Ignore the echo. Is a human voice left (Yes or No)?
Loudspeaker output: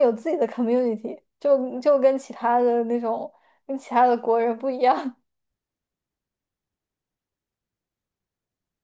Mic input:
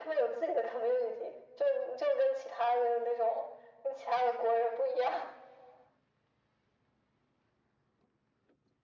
No